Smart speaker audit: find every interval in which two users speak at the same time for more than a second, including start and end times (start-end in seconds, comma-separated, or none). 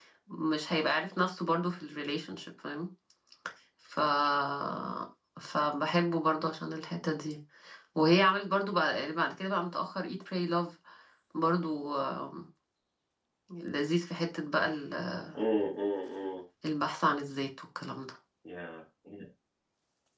none